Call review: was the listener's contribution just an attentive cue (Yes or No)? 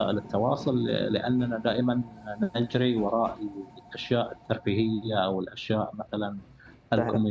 Yes